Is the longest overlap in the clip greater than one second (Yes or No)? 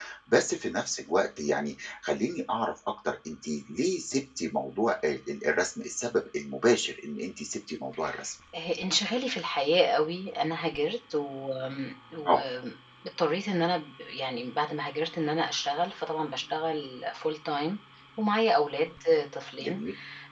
No